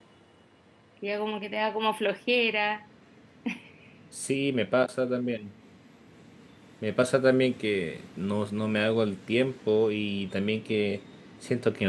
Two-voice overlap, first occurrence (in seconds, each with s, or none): none